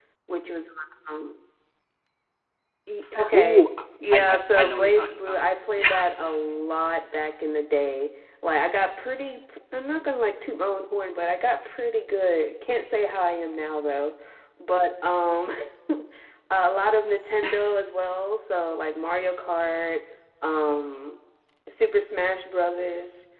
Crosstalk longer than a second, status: present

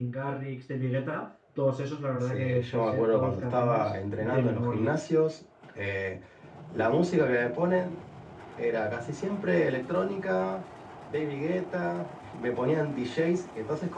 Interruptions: present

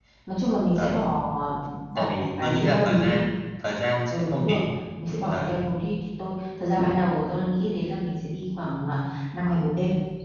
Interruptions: present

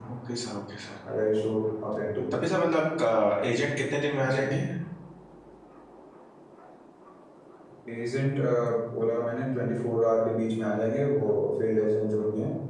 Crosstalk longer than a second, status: none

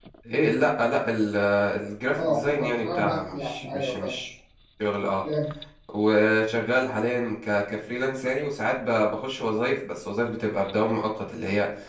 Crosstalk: present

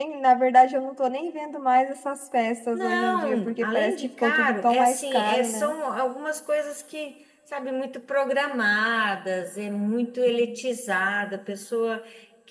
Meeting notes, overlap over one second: present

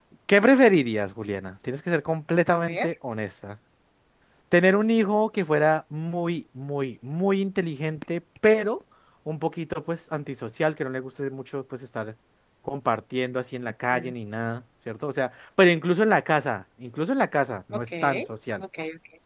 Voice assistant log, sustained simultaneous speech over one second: none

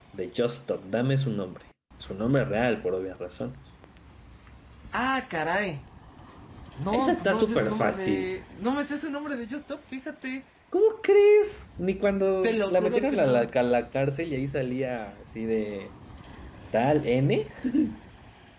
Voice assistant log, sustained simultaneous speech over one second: present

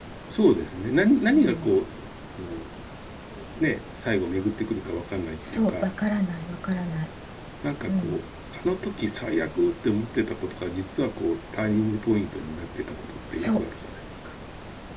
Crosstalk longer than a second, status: none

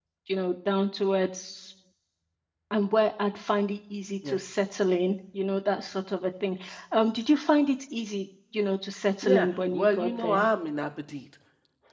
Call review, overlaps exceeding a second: present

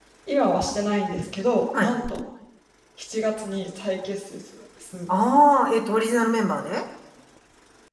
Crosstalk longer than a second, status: none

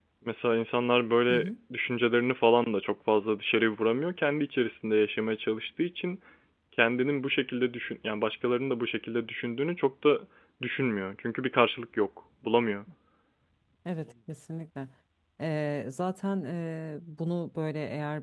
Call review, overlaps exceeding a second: none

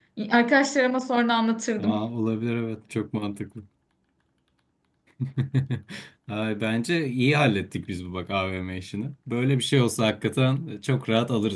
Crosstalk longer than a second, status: none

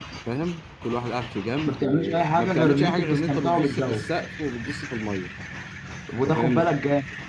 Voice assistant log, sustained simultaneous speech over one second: present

